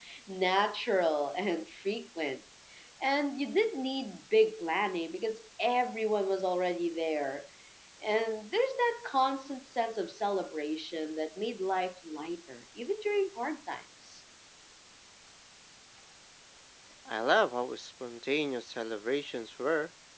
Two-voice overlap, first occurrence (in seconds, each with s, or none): none